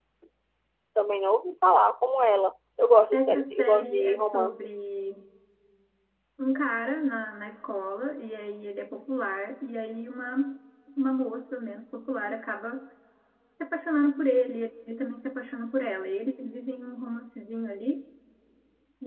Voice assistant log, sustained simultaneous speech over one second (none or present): present